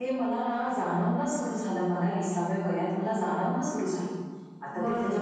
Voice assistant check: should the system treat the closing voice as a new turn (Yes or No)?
No